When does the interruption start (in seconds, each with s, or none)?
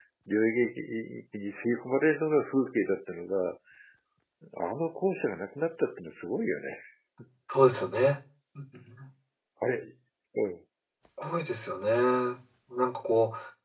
none